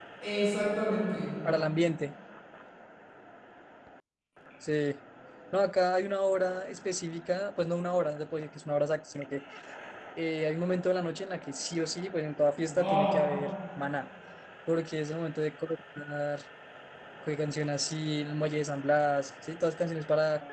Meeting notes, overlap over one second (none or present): none